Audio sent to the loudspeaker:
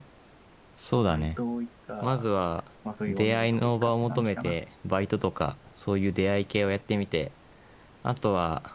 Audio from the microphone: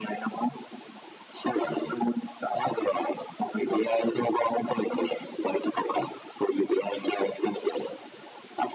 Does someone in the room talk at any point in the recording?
No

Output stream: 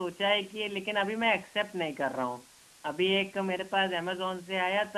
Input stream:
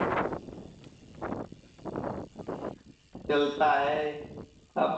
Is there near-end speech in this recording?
Yes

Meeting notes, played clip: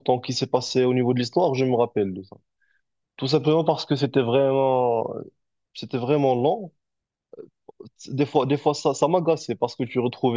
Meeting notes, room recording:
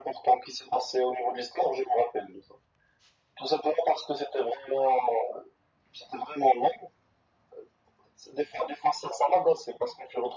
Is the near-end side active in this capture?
No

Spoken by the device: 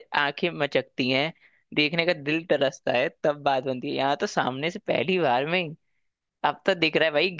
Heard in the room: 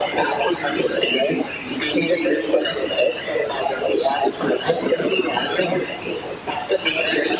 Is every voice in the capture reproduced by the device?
Yes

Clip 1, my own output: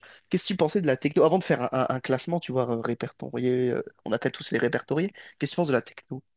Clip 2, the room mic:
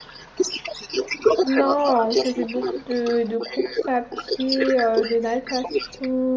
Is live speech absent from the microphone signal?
No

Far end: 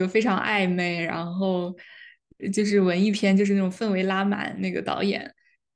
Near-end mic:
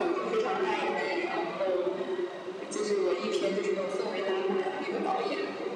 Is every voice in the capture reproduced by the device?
Yes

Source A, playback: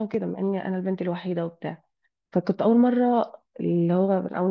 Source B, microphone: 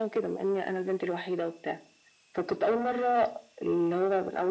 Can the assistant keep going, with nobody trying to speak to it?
Yes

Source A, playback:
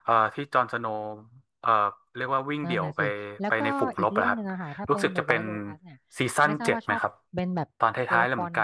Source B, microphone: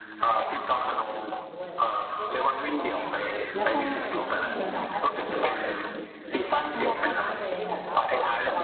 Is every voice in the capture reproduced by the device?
No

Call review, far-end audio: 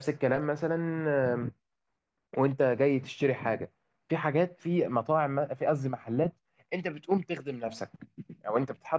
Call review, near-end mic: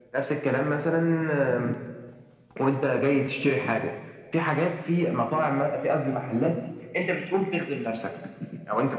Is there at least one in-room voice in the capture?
No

